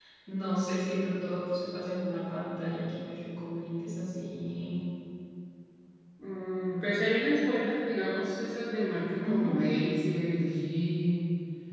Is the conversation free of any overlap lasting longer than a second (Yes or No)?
Yes